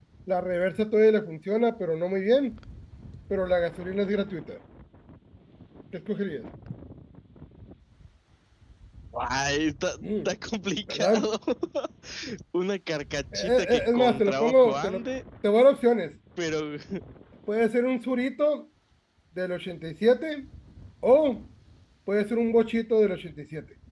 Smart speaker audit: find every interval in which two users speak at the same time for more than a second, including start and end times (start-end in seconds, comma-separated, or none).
13.3-15.0